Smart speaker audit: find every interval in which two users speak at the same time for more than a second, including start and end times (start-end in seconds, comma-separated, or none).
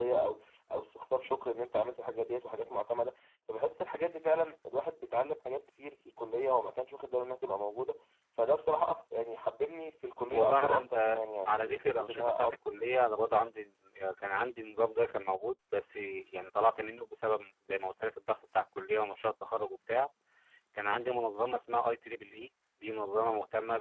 10.3-12.6